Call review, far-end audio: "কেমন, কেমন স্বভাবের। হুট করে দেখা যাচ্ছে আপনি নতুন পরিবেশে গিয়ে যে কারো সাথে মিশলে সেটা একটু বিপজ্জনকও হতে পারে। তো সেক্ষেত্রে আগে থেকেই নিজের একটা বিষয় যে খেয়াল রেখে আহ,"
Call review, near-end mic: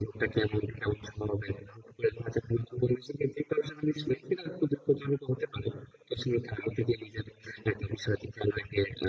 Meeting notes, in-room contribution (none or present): none